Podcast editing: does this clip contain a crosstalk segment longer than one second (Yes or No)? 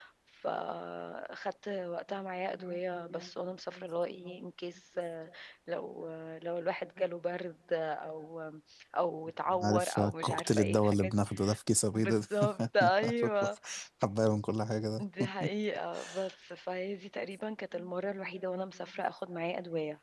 Yes